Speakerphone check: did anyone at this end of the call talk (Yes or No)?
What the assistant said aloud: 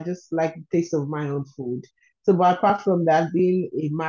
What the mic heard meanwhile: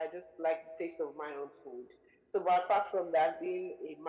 No